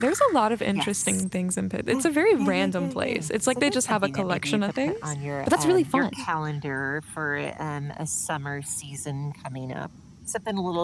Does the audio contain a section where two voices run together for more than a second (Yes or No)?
Yes